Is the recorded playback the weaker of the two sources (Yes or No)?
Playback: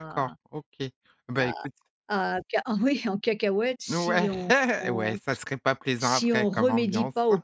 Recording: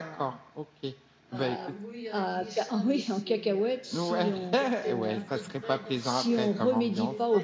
No